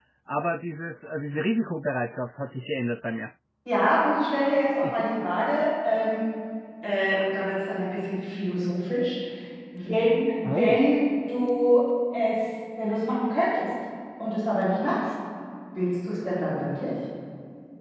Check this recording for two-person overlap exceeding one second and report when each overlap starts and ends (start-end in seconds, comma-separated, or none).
none